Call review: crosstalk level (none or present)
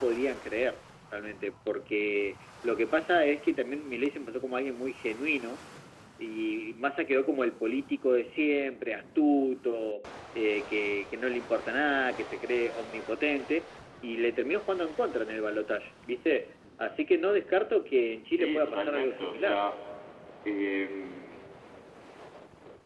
present